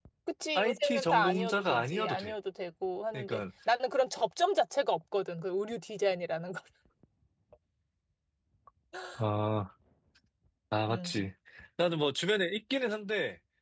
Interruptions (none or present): present